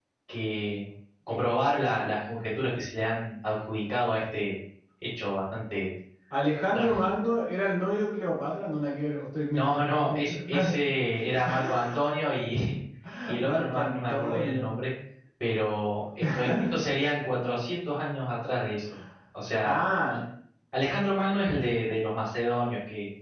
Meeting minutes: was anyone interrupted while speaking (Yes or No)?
Yes